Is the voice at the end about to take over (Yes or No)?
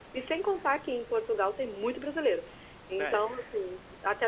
No